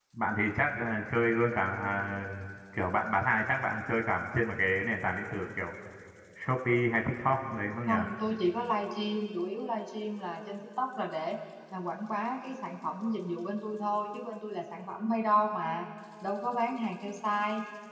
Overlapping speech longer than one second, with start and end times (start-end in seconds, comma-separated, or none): none